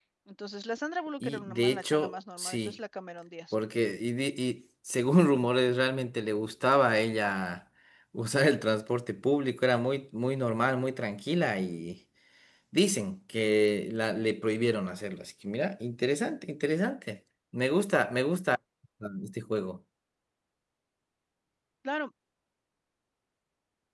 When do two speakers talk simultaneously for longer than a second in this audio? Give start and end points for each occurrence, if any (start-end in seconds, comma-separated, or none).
1.2-2.8